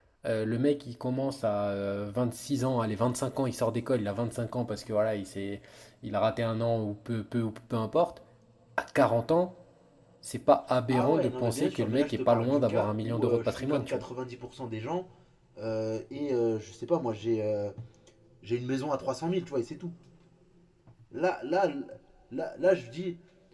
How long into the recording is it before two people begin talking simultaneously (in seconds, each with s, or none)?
10.9 s